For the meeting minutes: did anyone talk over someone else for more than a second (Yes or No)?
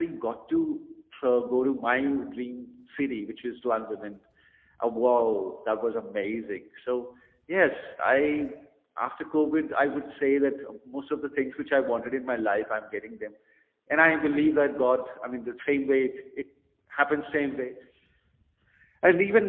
No